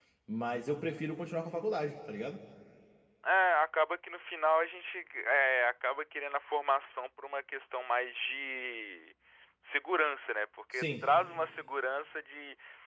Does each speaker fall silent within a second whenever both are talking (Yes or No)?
Yes